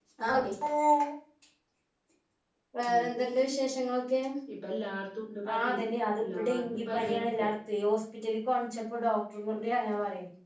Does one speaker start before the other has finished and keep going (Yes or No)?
Yes